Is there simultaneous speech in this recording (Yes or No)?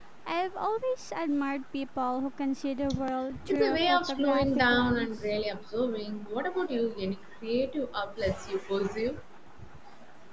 Yes